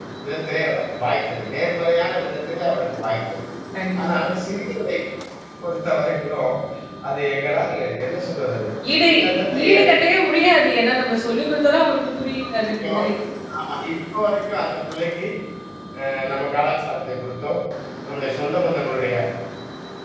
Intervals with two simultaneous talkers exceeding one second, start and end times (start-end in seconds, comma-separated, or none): none